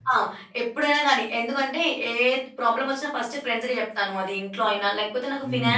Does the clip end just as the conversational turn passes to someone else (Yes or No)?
No